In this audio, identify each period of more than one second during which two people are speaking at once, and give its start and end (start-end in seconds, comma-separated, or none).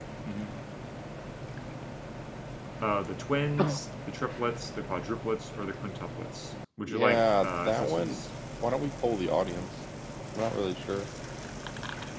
6.9-8.3